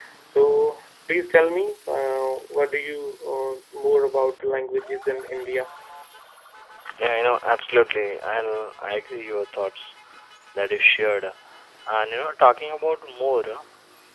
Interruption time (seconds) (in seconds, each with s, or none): none